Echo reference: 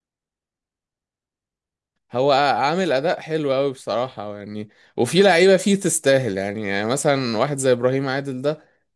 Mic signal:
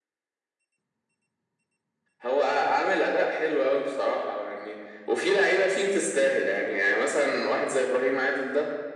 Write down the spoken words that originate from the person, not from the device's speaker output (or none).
none